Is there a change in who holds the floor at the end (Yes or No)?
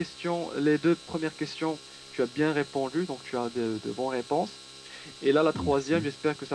No